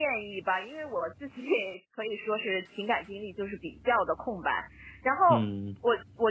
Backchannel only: Yes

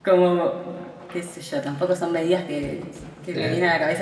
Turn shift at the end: No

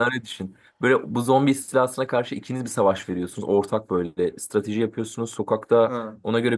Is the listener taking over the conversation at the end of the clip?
No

